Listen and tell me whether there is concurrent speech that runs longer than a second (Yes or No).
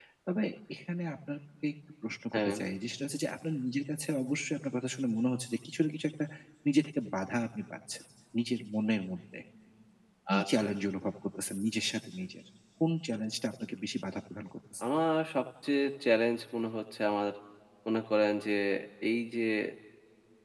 No